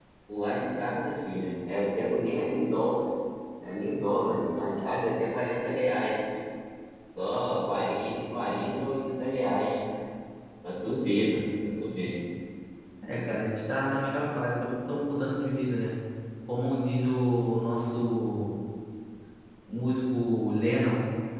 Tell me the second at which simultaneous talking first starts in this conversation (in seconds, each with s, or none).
none